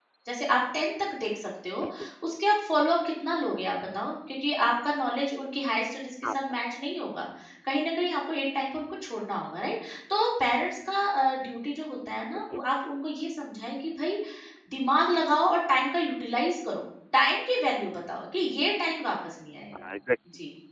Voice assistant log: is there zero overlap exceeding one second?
Yes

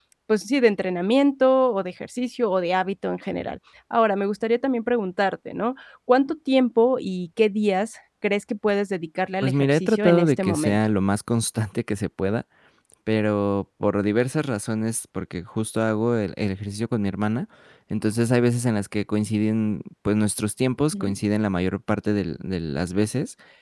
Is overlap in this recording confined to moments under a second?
No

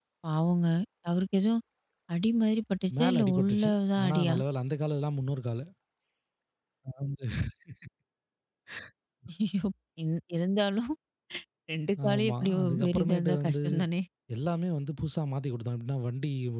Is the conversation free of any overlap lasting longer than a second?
No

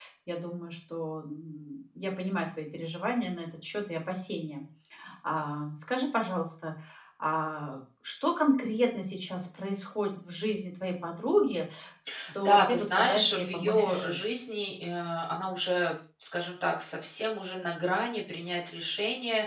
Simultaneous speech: Yes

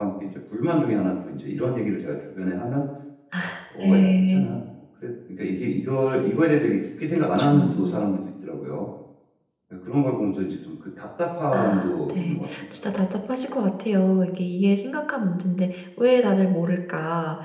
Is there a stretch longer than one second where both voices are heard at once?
Yes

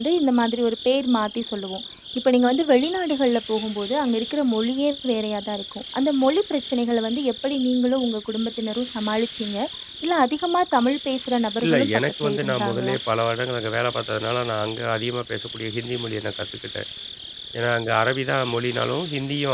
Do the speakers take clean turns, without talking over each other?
No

